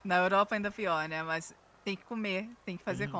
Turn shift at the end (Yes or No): Yes